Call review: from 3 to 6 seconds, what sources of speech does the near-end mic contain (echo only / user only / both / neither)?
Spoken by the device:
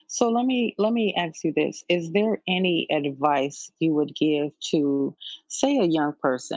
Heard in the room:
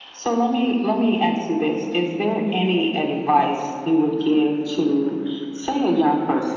echo only